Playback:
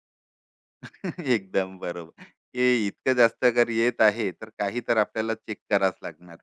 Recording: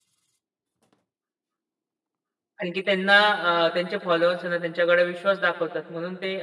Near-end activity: present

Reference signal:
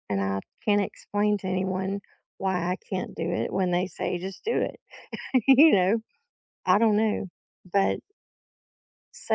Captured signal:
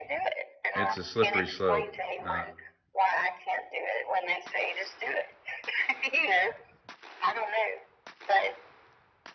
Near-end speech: present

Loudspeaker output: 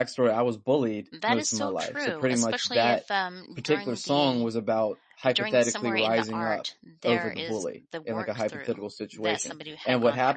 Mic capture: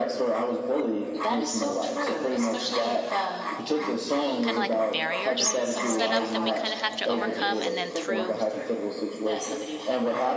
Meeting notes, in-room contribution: present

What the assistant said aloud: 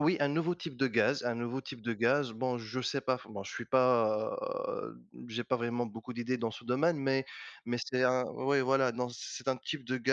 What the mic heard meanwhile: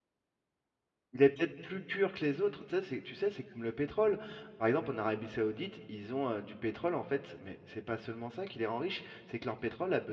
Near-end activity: present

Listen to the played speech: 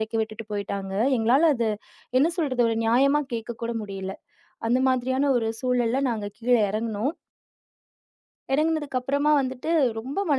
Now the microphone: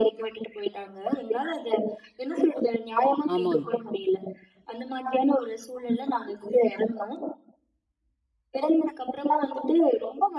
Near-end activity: present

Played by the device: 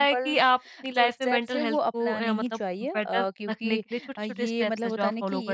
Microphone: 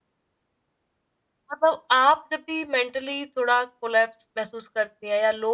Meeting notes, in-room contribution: present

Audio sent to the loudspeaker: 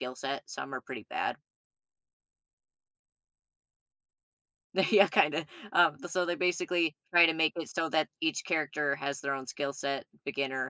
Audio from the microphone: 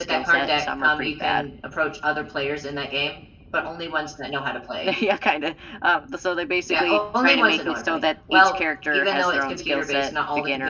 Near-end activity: present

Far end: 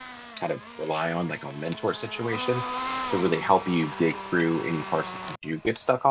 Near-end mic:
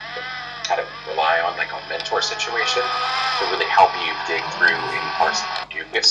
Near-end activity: present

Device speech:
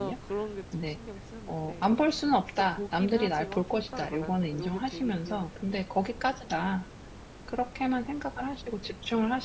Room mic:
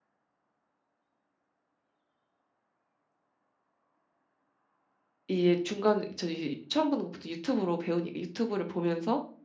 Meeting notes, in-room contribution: present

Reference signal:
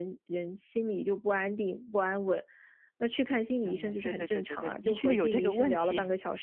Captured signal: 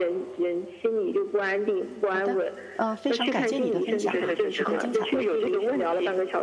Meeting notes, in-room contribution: present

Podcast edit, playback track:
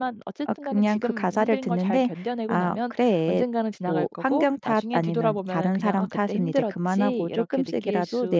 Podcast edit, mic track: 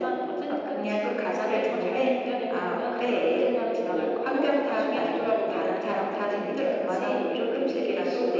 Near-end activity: none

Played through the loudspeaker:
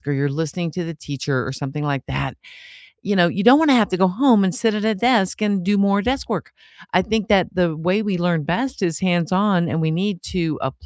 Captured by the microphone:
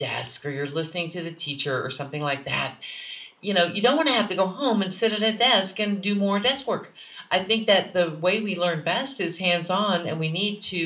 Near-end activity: none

